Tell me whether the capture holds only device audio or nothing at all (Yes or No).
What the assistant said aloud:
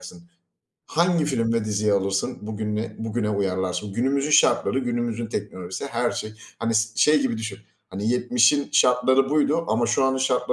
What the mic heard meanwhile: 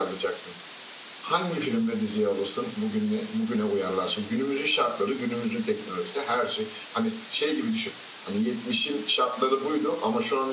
Yes